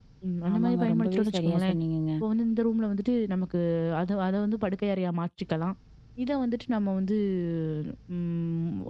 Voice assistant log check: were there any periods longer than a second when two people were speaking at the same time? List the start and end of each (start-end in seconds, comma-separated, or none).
0.5-1.8